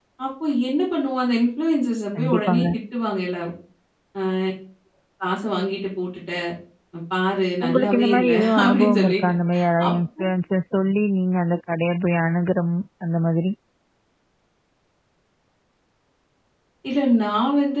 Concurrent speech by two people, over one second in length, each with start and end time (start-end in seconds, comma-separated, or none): 7.6-9.1